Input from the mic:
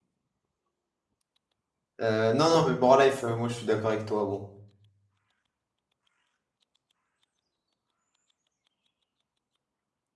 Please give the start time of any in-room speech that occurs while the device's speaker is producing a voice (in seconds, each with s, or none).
2.0 s